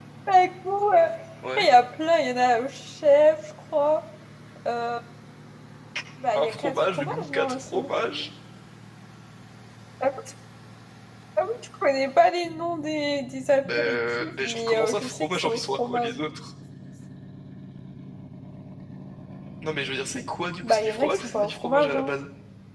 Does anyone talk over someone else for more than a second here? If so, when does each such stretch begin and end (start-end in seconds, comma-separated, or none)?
6.3-7.8, 13.6-16.1, 20.6-22.1